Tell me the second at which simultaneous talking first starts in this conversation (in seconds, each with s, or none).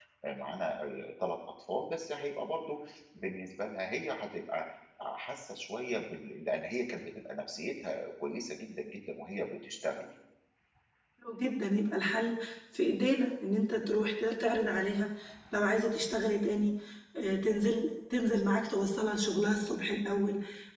none